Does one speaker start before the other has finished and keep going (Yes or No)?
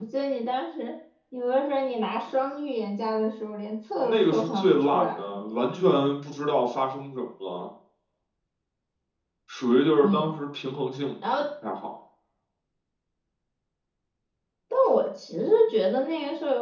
Yes